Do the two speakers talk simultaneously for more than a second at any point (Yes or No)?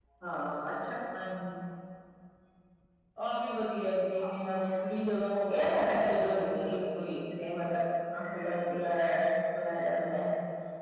Yes